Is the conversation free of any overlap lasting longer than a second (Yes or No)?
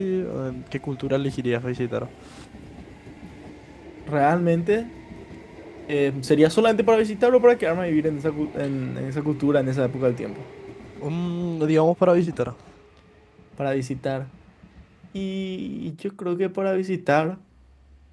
Yes